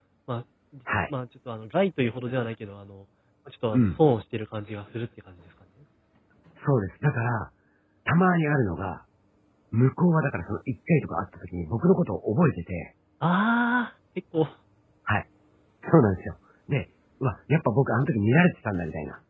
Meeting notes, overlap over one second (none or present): none